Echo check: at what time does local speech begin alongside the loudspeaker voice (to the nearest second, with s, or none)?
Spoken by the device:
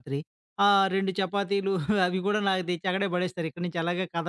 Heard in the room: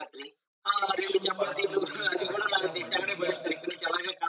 1 s